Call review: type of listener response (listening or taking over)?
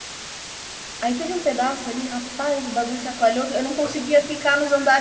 listening